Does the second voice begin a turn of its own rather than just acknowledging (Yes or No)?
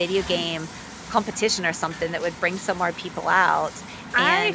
Yes